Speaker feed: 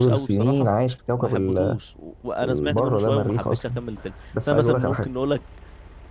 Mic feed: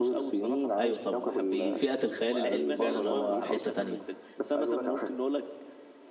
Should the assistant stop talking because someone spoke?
Yes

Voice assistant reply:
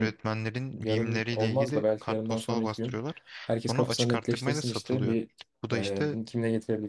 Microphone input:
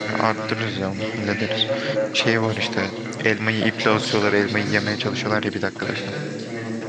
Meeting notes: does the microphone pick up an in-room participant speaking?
Yes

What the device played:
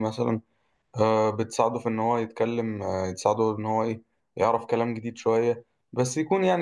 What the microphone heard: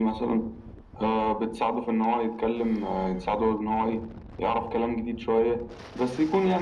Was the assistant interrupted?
No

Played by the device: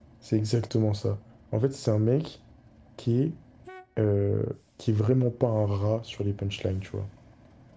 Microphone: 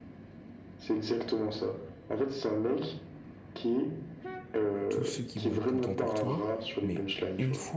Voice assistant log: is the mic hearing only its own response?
No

